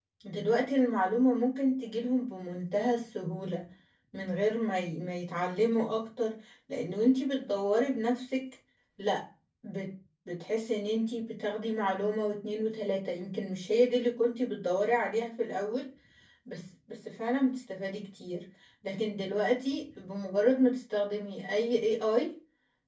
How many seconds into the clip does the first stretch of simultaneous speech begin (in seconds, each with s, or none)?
none